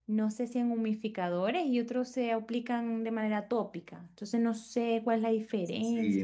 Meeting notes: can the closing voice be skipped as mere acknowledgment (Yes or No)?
No